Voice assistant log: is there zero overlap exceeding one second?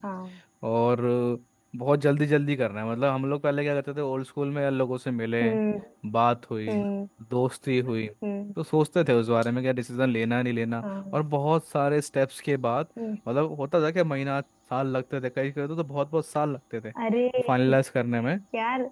Yes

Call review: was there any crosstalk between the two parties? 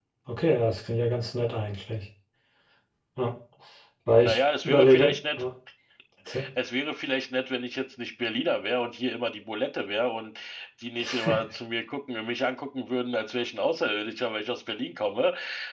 Yes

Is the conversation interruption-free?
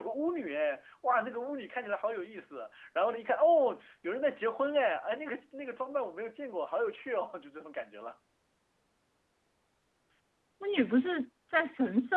Yes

